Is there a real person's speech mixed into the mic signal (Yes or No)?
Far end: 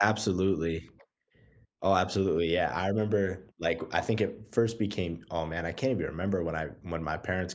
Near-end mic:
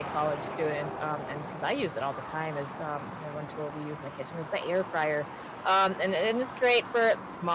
Yes